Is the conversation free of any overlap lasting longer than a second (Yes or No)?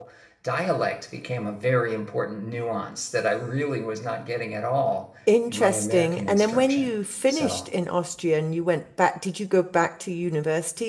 No